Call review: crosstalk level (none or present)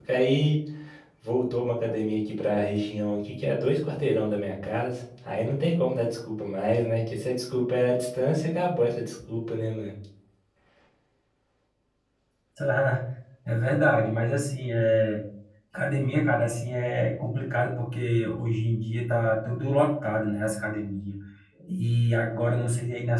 none